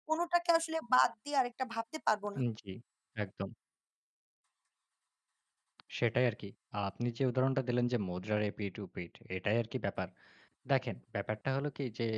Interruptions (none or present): none